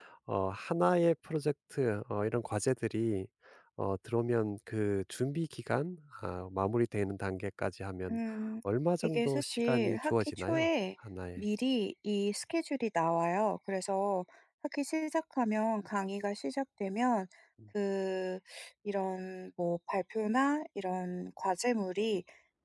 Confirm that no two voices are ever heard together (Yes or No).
No